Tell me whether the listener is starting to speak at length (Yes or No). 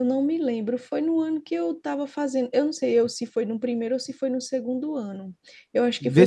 Yes